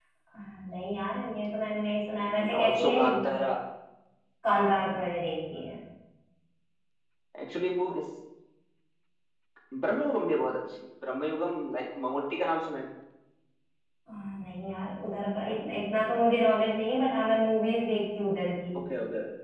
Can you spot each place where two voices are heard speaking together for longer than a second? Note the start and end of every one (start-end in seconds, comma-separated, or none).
2.3-3.5